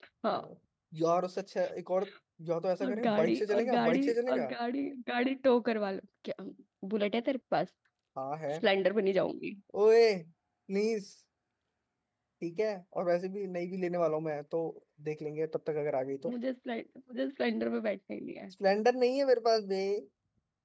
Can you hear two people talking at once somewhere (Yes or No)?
Yes